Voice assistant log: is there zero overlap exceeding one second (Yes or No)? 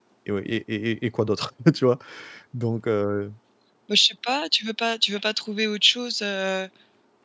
Yes